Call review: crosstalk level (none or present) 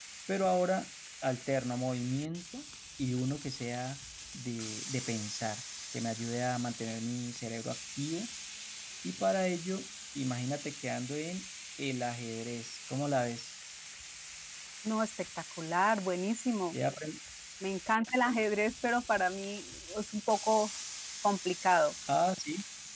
none